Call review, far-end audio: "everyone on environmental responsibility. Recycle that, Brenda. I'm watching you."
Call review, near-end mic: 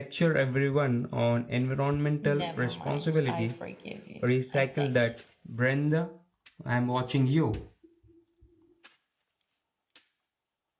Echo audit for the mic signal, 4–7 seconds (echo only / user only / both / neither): both